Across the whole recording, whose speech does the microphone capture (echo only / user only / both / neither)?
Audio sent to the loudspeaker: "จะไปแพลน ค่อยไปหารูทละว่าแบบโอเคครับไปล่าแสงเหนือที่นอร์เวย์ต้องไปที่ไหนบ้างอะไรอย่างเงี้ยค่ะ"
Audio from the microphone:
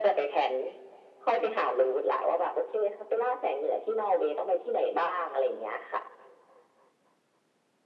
echo only